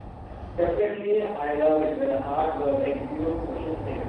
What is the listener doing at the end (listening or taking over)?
taking over